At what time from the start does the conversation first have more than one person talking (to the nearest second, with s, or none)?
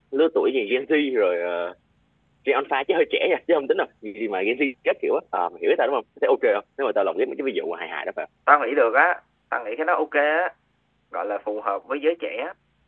none